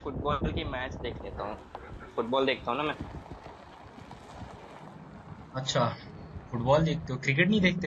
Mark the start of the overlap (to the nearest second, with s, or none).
none